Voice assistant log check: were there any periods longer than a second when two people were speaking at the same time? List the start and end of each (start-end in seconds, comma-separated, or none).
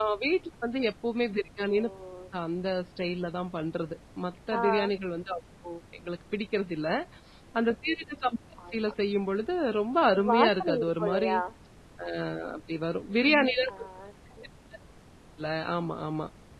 10.1-11.3